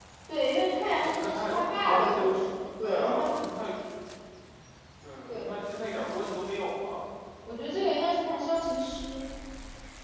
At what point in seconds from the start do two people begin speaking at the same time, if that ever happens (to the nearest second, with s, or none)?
1 s